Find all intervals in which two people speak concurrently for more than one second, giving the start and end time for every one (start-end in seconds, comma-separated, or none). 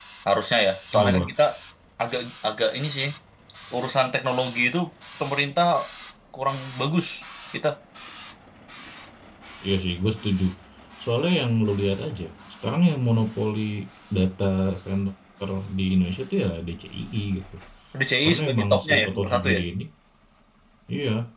18.2-19.5